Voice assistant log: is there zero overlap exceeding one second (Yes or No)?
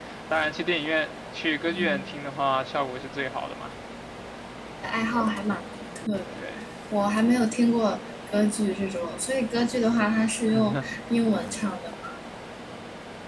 Yes